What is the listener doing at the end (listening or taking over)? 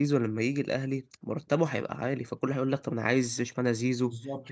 taking over